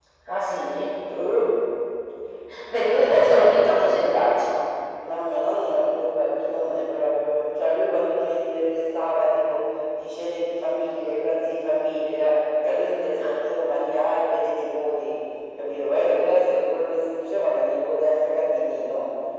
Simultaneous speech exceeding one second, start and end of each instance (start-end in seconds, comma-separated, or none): none